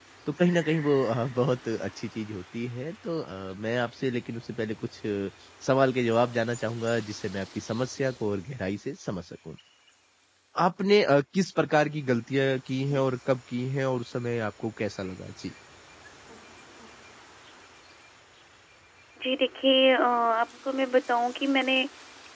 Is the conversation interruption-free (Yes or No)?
Yes